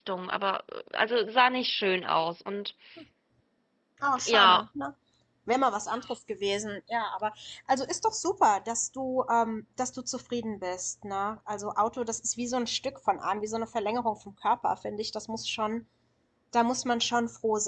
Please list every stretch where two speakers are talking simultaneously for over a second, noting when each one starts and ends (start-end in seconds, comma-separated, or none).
none